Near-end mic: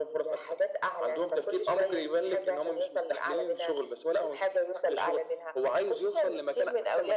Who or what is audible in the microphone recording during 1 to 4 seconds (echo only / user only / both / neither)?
echo only